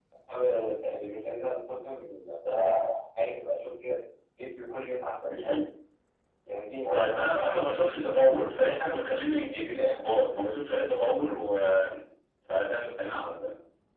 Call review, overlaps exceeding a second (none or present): none